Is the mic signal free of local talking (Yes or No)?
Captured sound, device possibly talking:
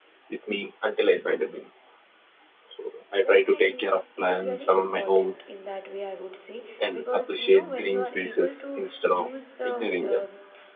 No